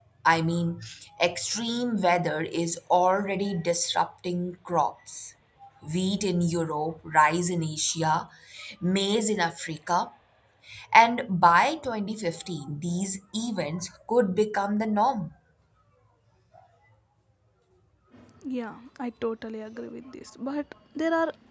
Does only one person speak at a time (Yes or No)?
Yes